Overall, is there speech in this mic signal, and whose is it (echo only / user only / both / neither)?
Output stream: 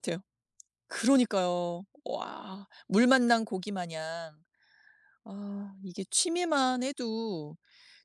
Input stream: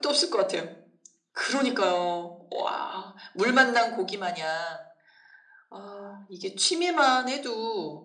echo only